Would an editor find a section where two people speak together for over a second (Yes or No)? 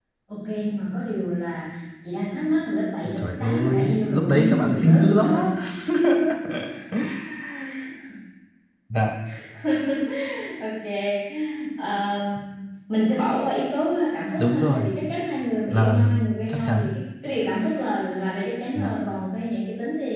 Yes